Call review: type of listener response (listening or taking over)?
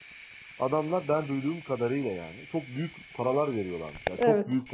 listening